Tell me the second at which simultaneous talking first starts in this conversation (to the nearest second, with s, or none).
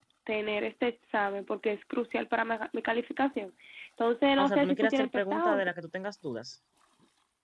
4 s